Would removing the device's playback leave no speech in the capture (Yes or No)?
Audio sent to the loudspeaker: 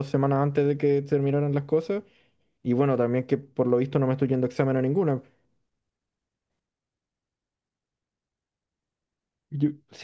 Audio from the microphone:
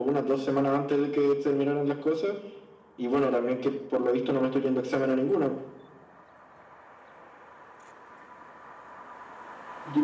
Yes